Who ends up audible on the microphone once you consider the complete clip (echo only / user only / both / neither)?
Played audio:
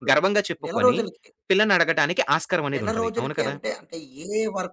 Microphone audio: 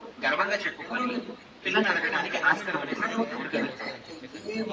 both